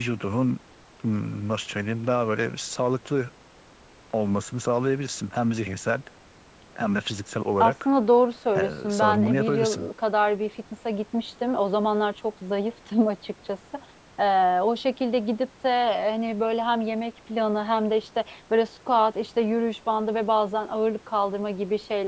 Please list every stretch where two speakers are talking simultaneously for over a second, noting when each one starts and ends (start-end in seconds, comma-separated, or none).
8.6-9.9